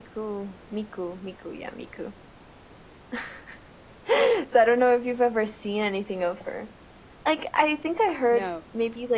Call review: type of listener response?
listening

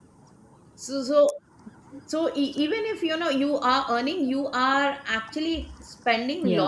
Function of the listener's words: taking over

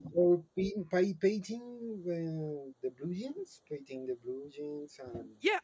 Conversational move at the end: taking over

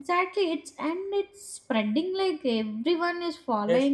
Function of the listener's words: taking over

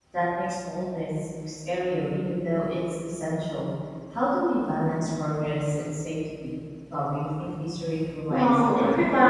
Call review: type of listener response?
taking over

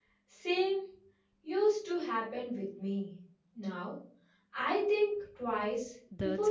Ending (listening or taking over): taking over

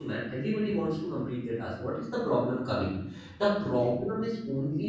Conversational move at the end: listening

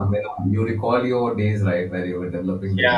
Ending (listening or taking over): taking over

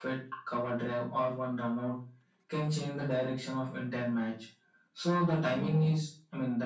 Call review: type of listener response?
listening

